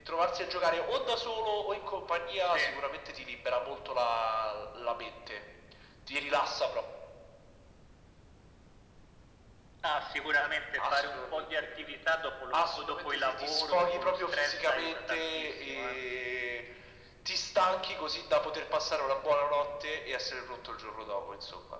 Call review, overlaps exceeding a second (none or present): present